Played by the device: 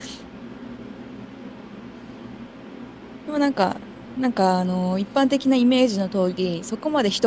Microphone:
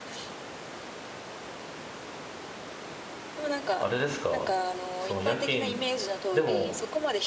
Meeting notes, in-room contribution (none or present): present